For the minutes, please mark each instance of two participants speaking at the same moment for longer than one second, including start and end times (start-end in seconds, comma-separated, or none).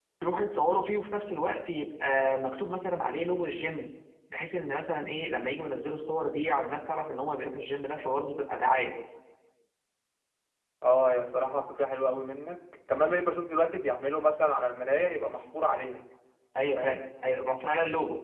none